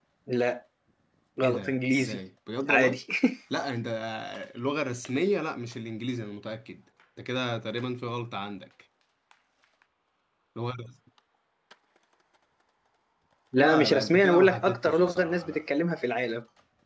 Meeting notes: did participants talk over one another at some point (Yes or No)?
Yes